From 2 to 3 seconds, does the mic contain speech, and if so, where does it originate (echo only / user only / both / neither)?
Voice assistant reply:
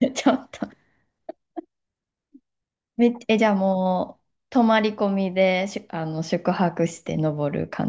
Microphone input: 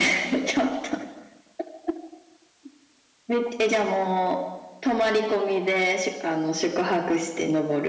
neither